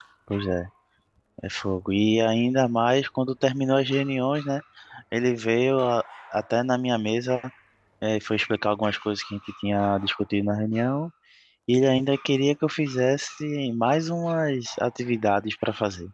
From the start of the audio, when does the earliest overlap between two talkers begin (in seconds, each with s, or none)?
none